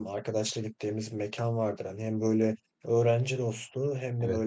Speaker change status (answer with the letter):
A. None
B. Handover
A